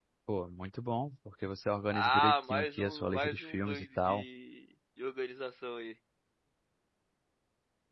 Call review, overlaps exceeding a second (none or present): present